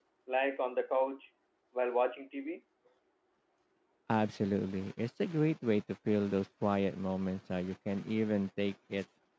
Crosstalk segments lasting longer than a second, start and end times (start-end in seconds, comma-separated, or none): none